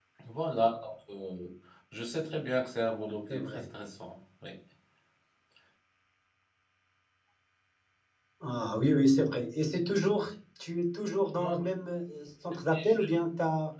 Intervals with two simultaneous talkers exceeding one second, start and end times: none

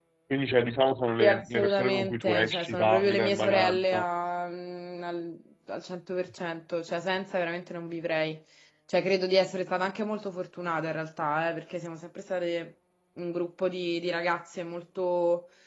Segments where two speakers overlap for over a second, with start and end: 1.2-4.0

